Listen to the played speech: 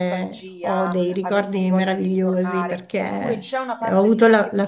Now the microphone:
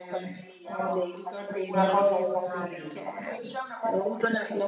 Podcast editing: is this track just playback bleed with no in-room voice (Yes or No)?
No